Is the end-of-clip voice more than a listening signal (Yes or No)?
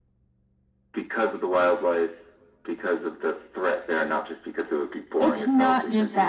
Yes